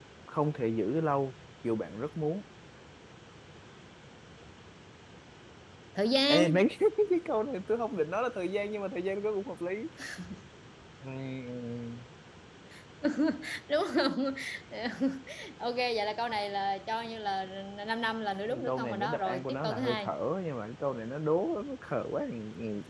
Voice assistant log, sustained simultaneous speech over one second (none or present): present